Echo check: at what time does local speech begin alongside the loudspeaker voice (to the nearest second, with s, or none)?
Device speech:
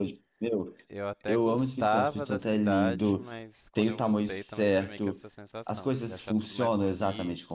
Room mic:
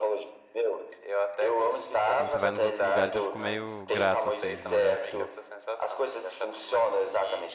2 s